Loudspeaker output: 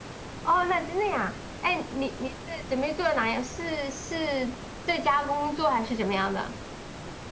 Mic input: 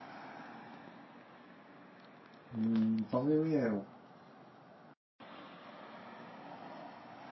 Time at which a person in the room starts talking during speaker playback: 2.5 s

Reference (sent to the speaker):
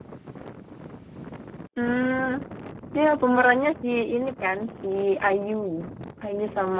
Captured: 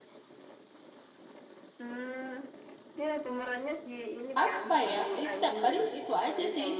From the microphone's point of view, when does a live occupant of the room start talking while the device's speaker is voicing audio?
4.4 s

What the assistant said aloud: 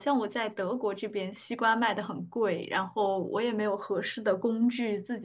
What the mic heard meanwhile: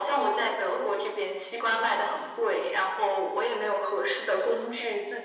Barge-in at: none

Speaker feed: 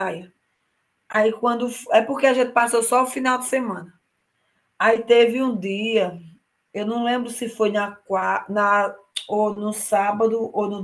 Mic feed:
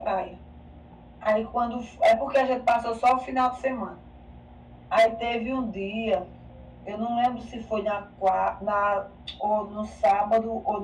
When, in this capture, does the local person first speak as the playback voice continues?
none

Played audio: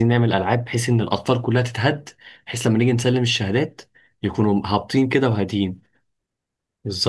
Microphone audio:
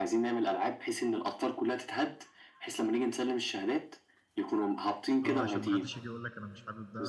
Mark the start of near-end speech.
5.2 s

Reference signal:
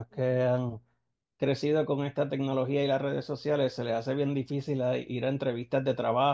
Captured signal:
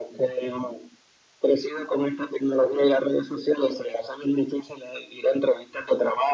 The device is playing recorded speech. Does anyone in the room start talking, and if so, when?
none

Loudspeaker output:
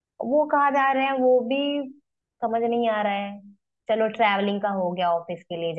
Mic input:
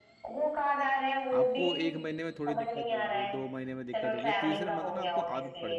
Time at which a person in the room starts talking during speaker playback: 1.4 s

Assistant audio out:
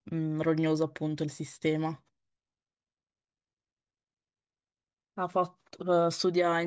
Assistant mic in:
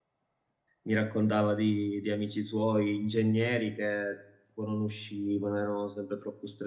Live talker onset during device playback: 0.8 s

